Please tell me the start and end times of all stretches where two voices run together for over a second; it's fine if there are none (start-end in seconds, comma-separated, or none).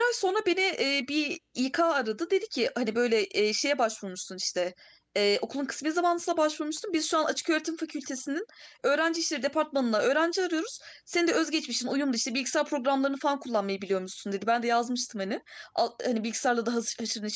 none